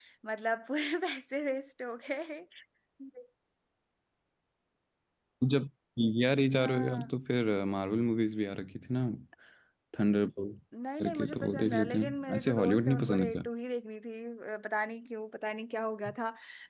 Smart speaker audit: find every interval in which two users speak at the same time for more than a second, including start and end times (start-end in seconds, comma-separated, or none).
11.0-13.4